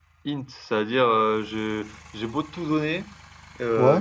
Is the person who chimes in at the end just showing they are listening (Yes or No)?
Yes